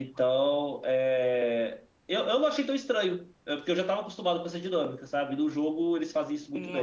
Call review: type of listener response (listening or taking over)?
taking over